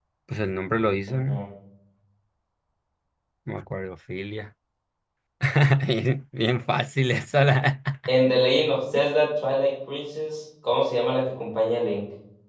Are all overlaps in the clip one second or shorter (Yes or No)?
Yes